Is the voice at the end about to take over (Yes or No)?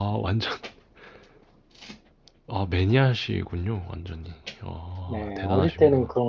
Yes